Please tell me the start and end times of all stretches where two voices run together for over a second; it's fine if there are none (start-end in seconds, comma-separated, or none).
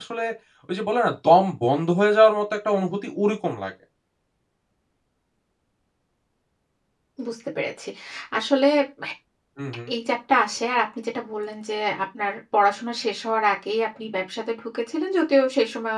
none